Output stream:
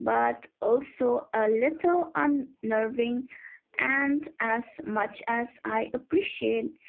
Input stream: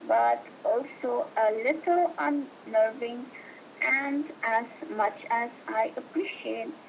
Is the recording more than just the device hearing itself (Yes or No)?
No